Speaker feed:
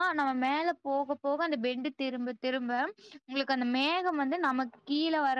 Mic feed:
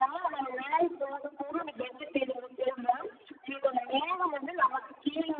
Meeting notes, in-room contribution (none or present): none